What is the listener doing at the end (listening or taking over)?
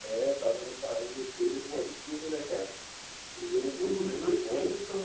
taking over